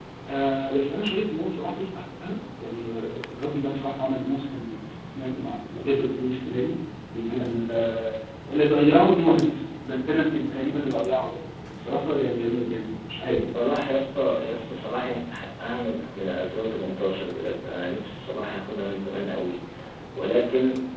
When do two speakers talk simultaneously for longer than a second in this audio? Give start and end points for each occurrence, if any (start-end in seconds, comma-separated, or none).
none